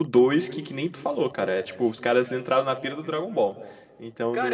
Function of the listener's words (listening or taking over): taking over